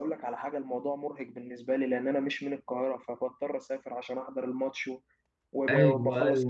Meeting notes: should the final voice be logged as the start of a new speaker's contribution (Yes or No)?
Yes